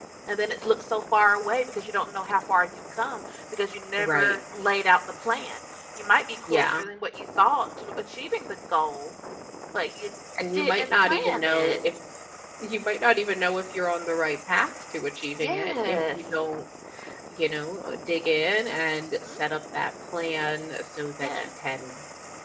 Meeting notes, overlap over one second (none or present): present